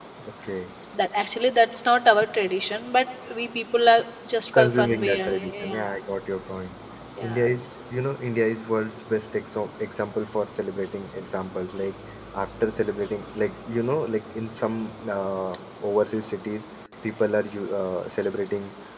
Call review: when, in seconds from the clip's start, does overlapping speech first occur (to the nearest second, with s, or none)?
5 s